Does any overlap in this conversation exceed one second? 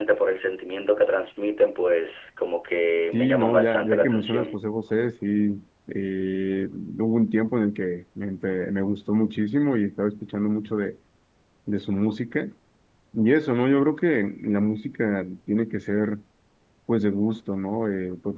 Yes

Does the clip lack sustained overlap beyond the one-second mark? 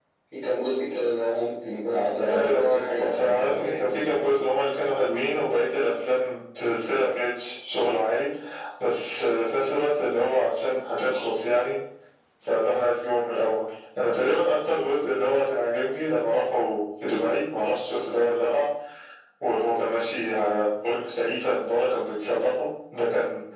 No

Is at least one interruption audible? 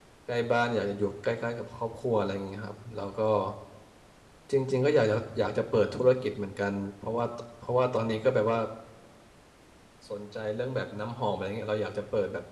No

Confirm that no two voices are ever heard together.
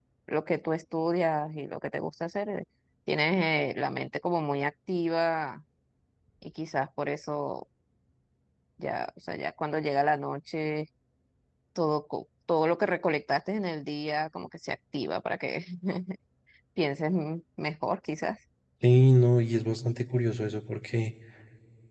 Yes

